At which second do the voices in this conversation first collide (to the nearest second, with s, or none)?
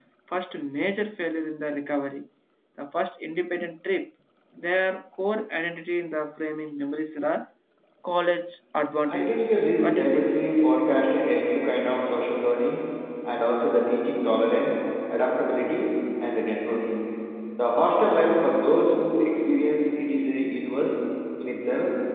9 s